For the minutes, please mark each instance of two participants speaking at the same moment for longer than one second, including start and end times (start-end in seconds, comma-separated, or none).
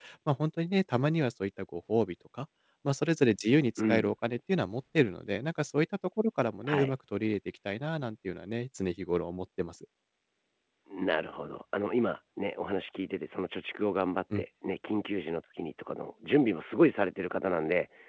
none